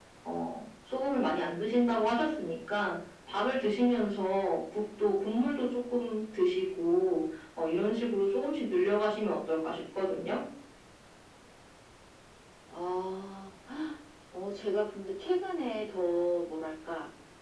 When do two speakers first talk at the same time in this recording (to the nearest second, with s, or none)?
none